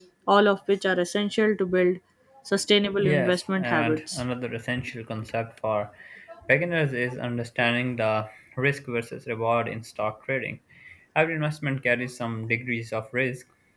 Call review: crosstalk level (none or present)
present